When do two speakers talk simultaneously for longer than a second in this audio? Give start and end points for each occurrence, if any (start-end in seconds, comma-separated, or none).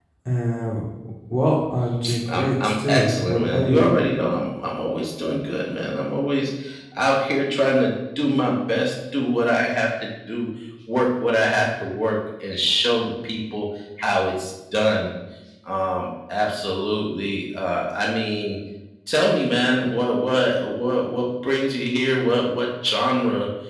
2.3-3.9